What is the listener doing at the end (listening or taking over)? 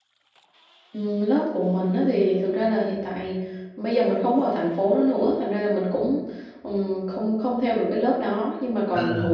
listening